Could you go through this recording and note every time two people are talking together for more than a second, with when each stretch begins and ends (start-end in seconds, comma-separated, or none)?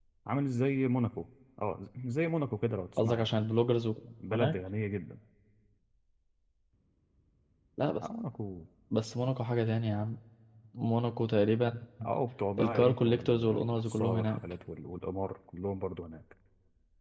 12.6-14.4